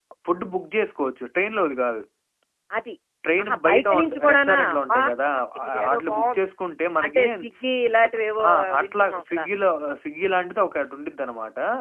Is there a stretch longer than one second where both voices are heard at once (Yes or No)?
Yes